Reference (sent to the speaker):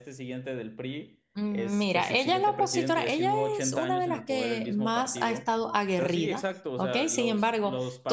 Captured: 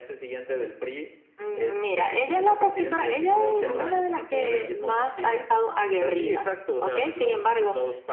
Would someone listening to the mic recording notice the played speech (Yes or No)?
Yes